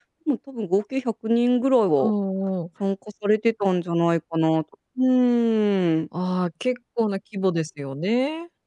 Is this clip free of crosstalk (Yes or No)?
Yes